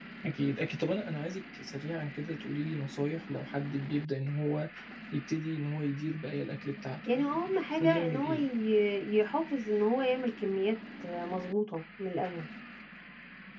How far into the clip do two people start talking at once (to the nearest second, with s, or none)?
7 s